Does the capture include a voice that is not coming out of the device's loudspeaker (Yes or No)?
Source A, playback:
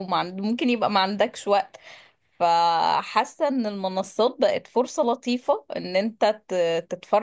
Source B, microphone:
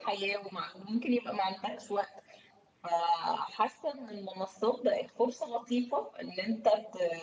No